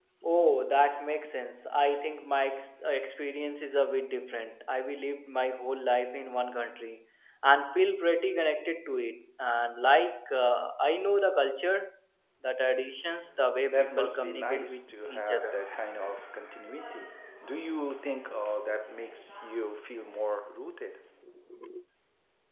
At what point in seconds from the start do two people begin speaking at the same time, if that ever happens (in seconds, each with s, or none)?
13.6 s